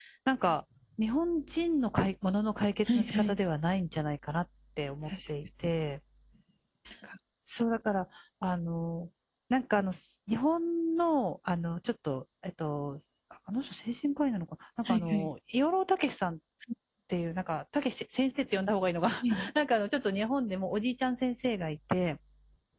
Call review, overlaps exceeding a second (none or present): none